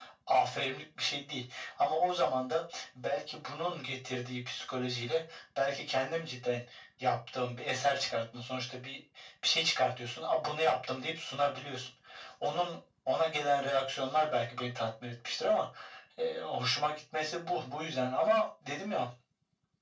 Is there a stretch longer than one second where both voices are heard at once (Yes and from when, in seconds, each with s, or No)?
No